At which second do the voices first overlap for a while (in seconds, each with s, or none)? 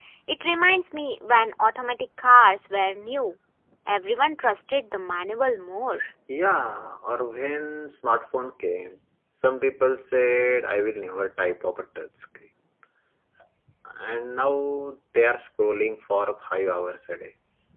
none